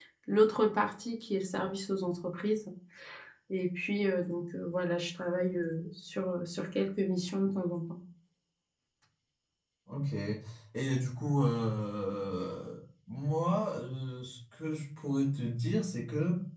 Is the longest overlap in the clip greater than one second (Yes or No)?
No